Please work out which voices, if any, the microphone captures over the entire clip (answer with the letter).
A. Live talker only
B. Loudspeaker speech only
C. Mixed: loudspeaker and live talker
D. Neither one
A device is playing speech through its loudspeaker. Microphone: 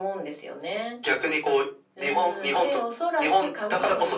B